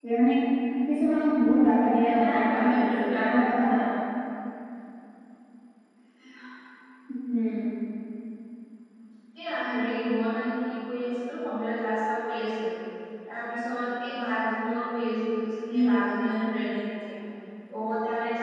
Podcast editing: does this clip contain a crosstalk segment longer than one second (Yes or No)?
Yes